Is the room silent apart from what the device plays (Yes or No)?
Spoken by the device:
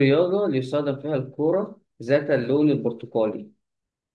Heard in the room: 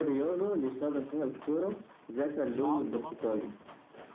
No